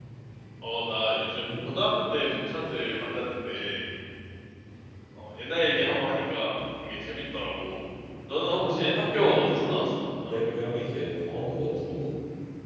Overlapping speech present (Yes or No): Yes